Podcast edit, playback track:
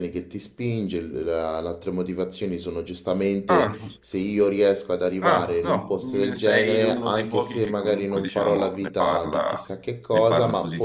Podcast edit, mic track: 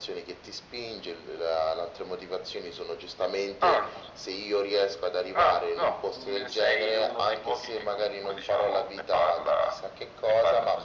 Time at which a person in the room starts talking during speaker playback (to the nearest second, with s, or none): none